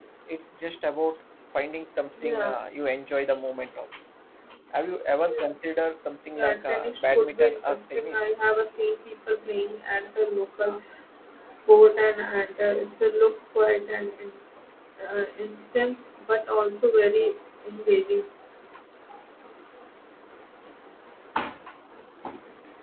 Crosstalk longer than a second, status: present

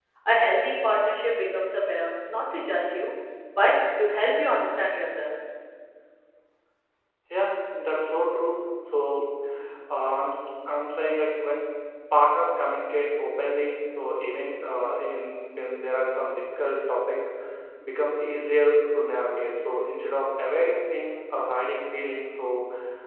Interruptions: none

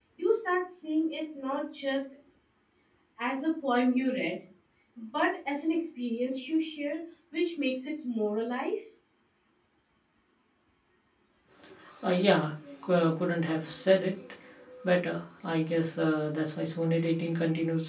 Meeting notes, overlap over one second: none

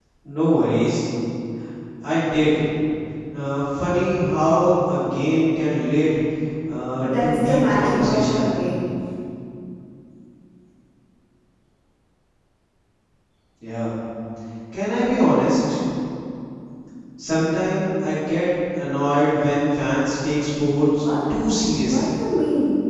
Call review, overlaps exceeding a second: present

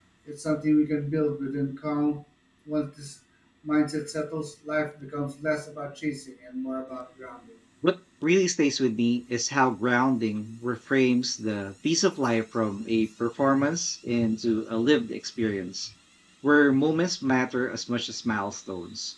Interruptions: none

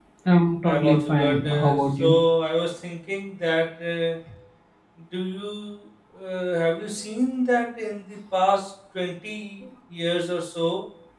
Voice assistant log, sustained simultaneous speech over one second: present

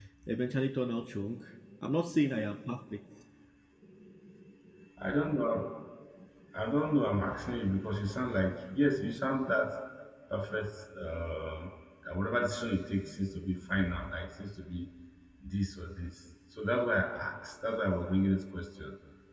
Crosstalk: none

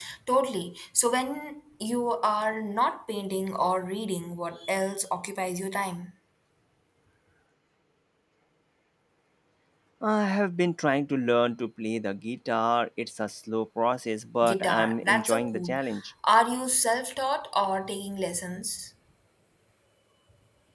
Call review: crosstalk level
present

